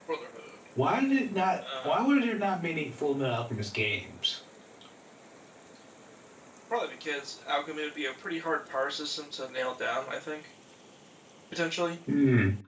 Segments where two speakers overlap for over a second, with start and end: none

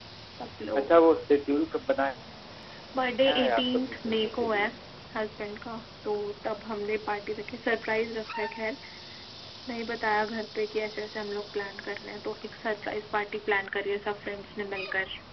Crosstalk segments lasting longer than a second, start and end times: 3.3-4.6

